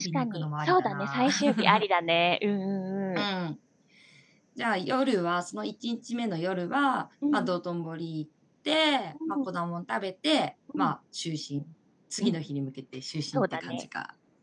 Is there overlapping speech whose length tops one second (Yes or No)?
Yes